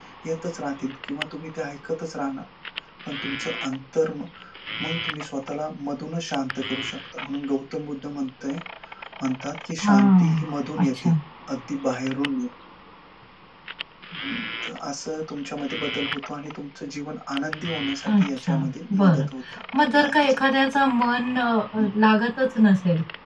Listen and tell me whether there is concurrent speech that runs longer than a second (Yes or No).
Yes